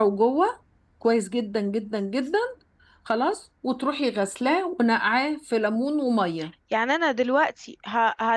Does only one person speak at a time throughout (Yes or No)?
Yes